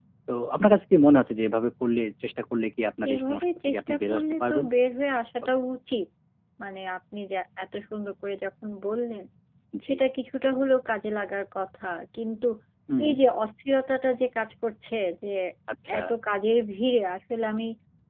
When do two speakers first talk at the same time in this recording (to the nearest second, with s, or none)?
3 s